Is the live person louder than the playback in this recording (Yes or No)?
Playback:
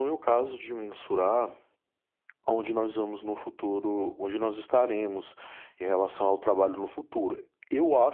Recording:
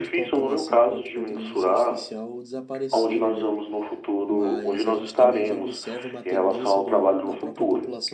No